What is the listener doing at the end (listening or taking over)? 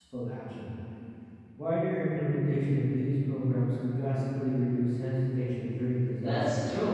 taking over